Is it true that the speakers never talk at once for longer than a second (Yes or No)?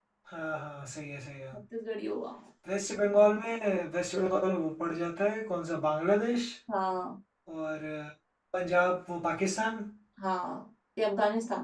Yes